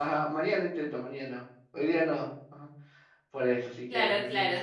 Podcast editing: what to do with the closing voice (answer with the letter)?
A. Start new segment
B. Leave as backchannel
A